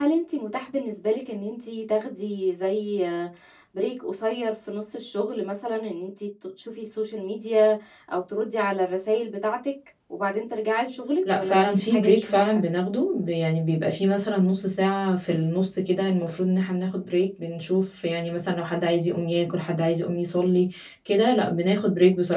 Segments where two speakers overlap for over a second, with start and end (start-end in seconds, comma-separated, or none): 11.3-12.6